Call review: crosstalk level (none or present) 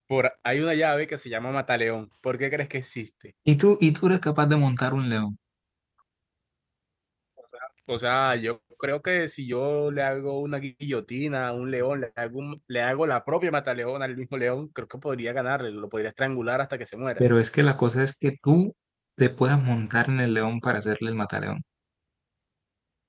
none